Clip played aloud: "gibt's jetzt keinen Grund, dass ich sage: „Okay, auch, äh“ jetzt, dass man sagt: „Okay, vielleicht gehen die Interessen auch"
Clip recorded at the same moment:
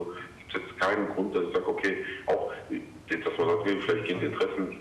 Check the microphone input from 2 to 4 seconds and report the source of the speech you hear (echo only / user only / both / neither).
both